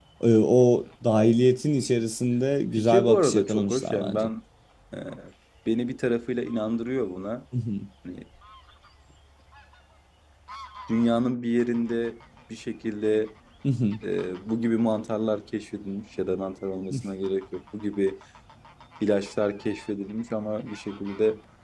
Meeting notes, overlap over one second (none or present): present